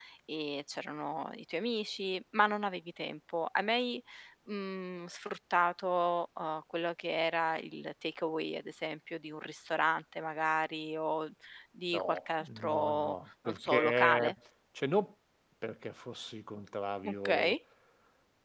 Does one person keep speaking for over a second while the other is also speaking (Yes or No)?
Yes